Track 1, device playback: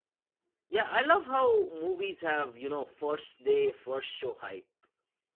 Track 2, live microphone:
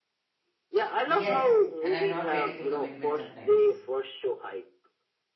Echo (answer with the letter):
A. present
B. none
A